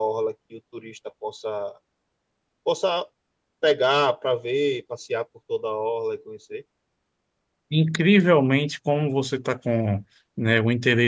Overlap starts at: none

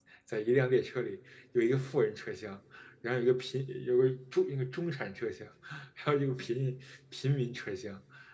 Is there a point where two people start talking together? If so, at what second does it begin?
none

